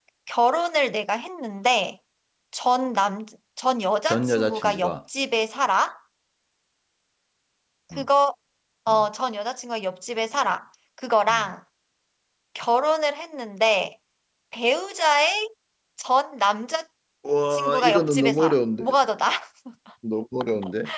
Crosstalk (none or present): present